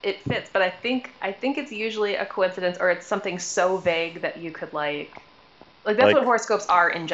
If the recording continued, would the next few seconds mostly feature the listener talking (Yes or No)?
No